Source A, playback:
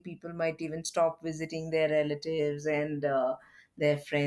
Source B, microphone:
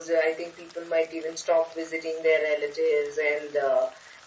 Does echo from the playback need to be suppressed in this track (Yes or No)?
Yes